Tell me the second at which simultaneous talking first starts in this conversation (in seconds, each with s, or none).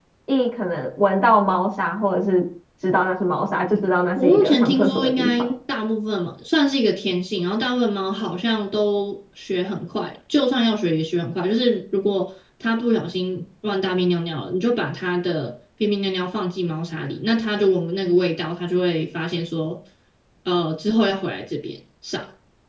4.2 s